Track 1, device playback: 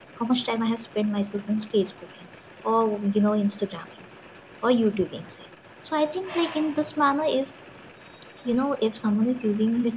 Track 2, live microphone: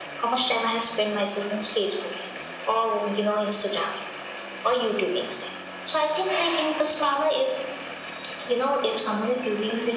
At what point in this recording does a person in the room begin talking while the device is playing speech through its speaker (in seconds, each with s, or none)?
none